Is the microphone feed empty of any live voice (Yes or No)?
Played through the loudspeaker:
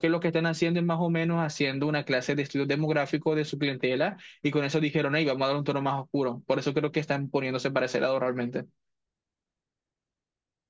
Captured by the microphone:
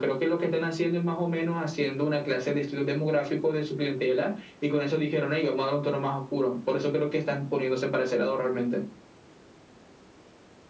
Yes